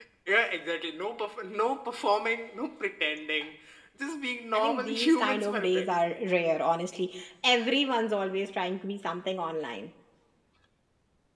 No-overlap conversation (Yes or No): No